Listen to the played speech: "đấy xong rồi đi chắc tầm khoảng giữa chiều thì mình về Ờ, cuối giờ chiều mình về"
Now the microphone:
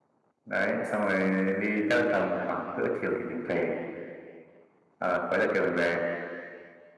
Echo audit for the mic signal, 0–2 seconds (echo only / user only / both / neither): echo only